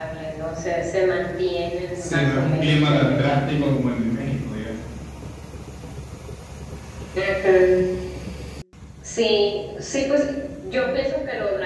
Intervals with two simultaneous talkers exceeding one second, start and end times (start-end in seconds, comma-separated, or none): 2.0-3.4